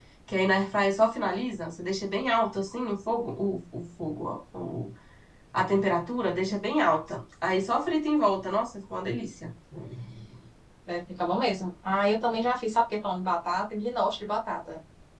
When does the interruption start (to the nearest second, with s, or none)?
none